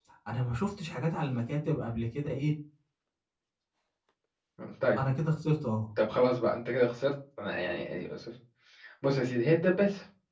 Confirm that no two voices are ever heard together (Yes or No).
Yes